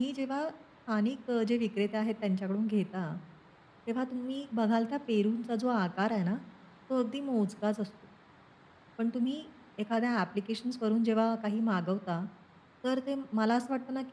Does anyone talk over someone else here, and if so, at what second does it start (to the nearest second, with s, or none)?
none